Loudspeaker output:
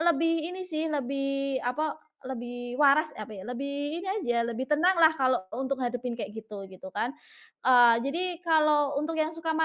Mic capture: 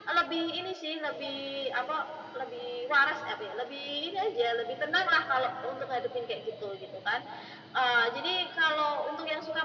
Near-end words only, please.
none

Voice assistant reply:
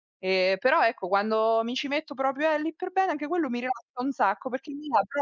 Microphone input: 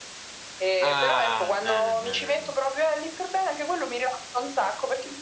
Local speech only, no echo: Ah, eh, eh, eh, eh.

